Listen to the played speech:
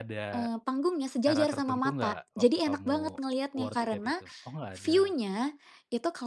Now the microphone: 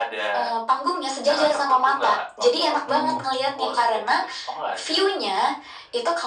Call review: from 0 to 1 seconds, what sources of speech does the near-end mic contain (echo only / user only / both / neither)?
echo only